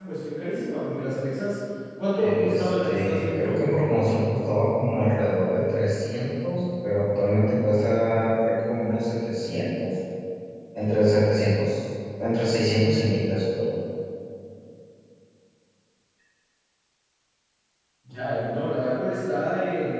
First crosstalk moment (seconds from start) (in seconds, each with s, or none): 2.2 s